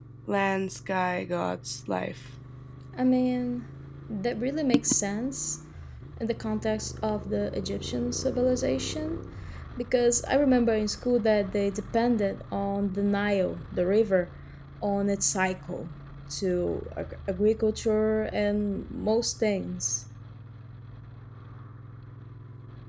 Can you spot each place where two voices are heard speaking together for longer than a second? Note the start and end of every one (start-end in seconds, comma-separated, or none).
none